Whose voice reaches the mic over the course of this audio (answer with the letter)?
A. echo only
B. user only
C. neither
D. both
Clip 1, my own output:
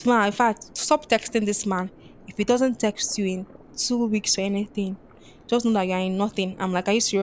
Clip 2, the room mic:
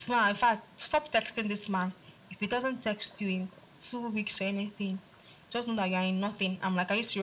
A